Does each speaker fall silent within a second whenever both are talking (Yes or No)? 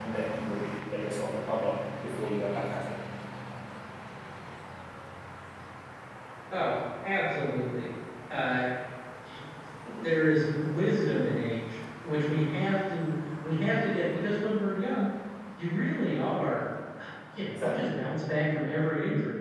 Yes